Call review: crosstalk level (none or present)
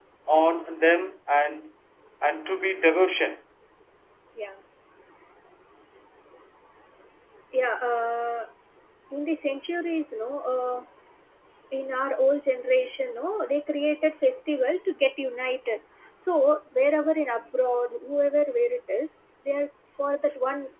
none